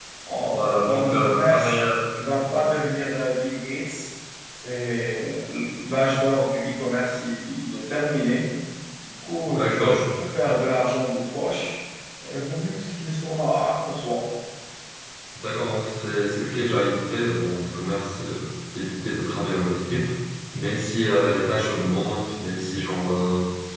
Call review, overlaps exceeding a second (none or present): present